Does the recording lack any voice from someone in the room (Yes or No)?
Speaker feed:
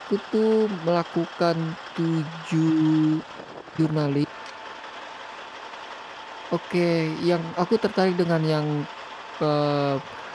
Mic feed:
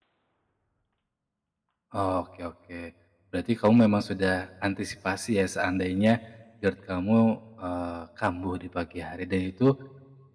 No